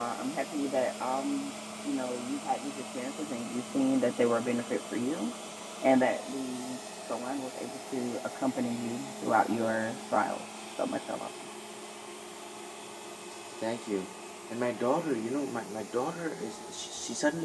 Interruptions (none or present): none